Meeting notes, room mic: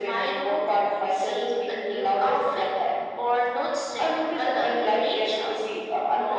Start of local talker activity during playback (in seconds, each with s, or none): none